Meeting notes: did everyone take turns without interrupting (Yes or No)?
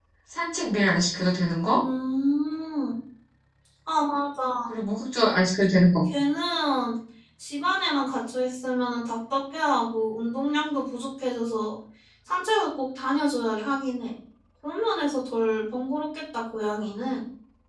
Yes